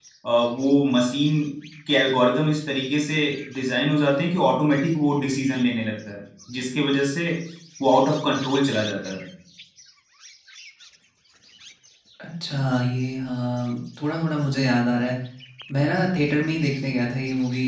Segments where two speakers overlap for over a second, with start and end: none

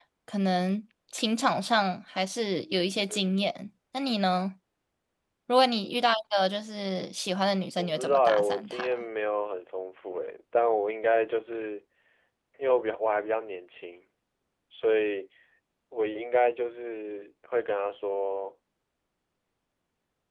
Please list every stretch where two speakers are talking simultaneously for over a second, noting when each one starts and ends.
7.8-9.0

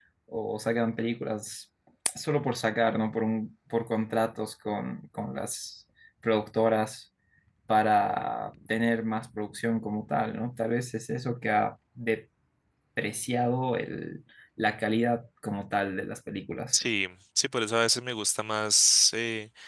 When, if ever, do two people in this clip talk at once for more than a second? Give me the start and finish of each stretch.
none

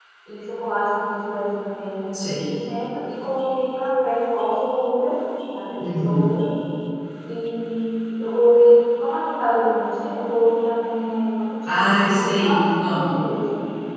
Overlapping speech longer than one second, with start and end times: 11.6-13.1

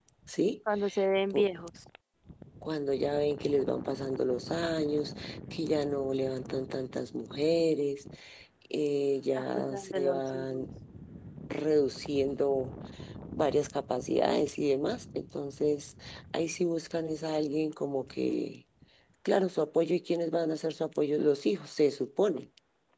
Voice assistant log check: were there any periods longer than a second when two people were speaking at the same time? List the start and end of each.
9.4-10.6

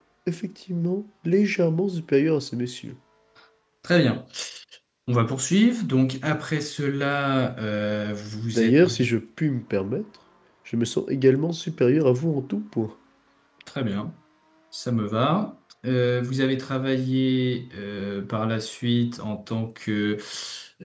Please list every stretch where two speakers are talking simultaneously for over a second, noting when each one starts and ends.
none

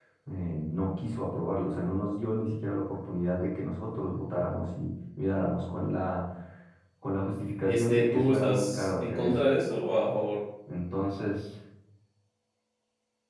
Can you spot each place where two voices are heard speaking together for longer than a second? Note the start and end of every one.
7.7-9.3

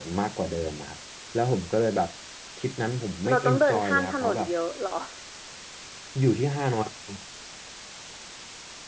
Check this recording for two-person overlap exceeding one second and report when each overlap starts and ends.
3.3-4.5

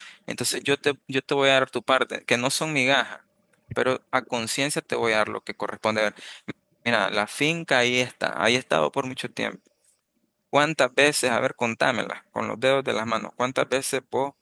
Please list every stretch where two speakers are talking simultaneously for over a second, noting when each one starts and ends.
none

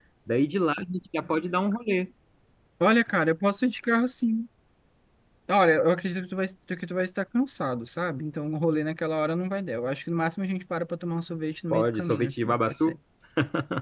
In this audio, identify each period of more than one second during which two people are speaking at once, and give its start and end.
11.7-12.9

